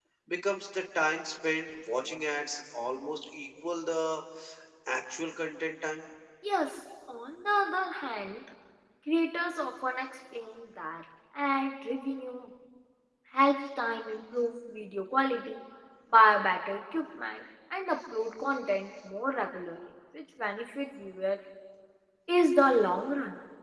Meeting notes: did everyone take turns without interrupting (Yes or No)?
Yes